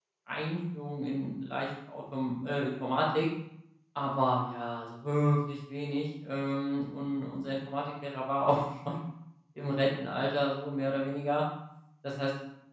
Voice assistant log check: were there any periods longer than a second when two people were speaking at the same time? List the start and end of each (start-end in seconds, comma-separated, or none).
none